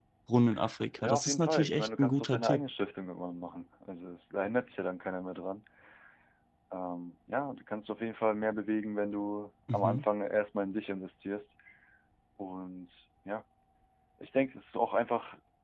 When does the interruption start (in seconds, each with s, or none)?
1.0 s